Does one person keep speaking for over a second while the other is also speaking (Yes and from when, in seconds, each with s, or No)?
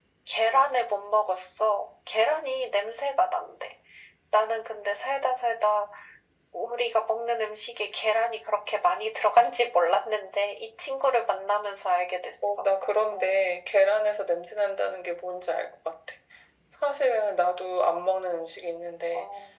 No